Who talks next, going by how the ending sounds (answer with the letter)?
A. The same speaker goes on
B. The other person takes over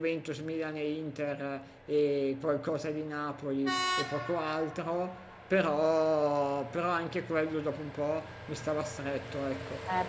B